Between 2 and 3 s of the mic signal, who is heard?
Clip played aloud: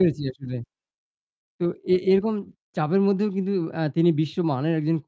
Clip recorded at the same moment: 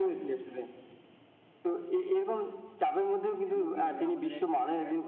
echo only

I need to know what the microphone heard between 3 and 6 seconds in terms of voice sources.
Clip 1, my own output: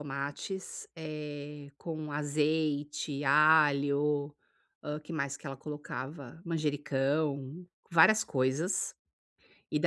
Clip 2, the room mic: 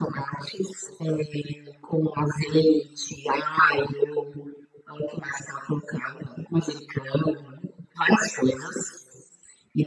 echo only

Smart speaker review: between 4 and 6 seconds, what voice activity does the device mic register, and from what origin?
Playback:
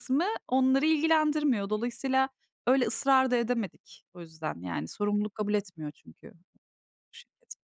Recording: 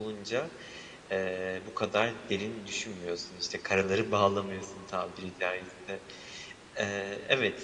user only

